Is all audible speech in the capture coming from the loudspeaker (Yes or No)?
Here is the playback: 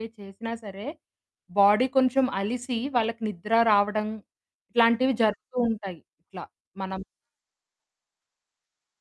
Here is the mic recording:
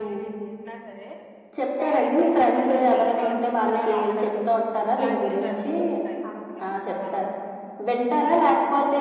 No